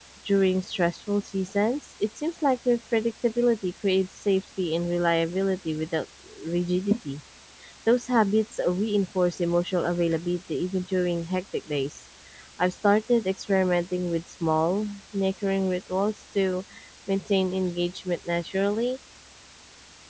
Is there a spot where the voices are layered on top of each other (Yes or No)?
No